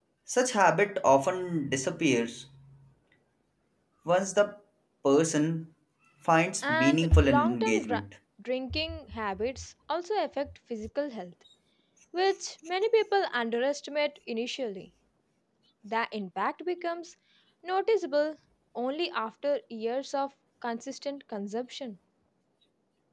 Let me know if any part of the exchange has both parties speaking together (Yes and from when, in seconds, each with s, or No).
Yes, from 6.7 s